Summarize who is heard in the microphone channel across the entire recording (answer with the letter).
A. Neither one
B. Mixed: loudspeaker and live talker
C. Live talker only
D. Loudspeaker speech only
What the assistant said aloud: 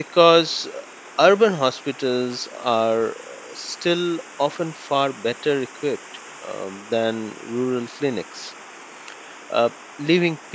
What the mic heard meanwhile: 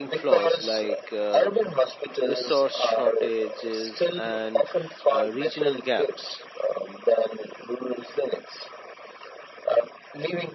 B